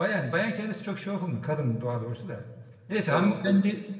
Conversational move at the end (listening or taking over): listening